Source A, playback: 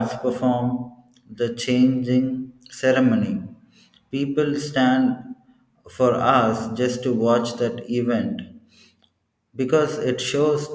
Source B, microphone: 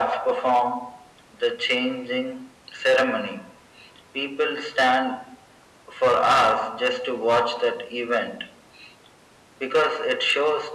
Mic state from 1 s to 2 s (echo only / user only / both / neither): echo only